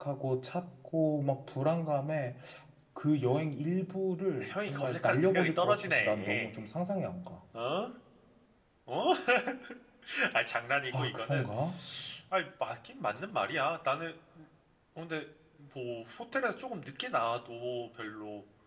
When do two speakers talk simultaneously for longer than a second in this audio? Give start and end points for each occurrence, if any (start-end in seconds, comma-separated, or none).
4.4-6.5